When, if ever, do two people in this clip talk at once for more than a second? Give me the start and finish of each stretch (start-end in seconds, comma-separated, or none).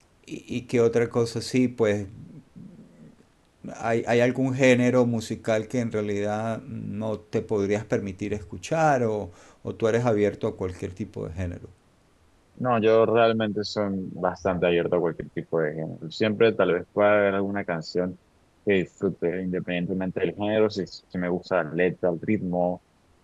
none